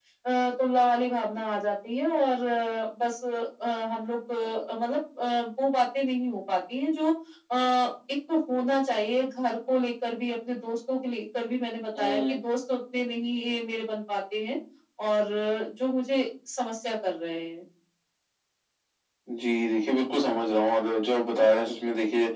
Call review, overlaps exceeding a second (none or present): none